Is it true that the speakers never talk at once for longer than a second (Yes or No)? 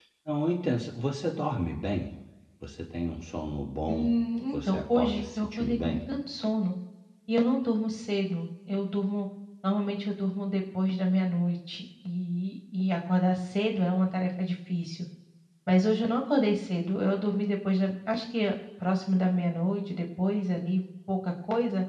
No